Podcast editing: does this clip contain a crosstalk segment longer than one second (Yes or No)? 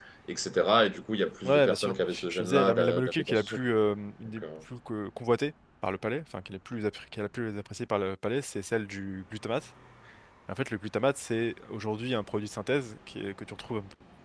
Yes